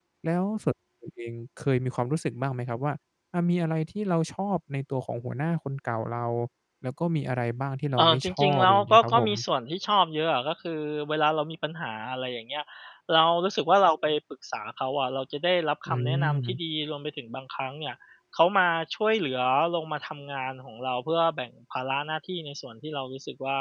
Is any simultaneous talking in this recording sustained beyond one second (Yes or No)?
Yes